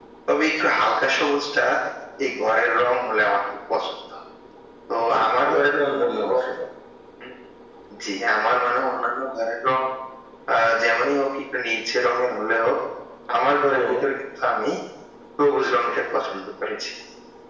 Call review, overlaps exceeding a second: present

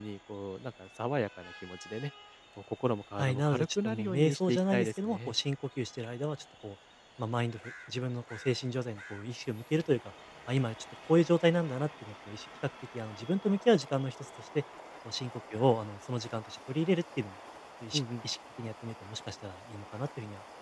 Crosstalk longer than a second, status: present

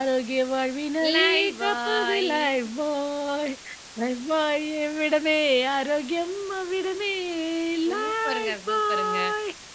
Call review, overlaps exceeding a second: present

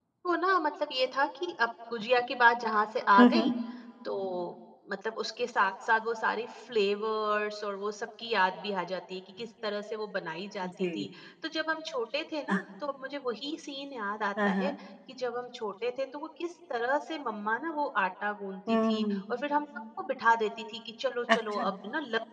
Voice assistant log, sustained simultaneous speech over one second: none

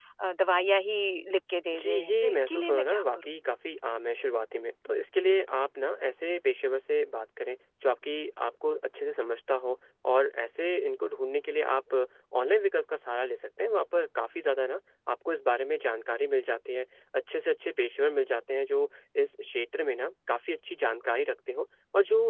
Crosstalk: present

